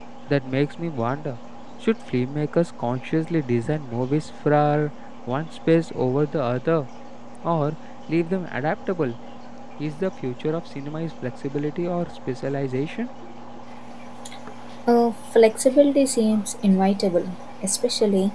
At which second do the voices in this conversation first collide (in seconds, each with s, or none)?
none